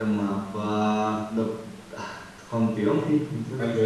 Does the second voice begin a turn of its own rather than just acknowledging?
Yes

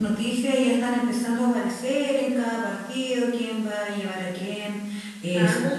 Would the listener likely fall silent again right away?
Yes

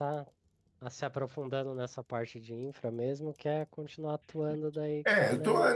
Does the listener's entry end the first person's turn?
Yes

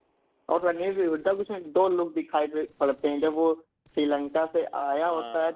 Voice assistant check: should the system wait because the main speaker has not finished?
Yes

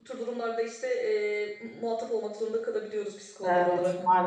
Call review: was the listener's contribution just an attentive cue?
No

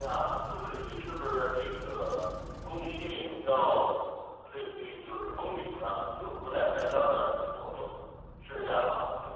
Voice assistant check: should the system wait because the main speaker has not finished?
No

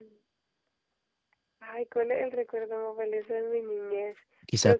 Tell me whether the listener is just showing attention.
No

